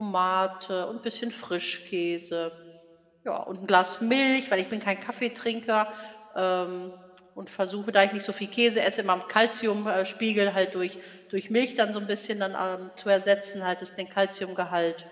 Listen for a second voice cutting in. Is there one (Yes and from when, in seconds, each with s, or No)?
No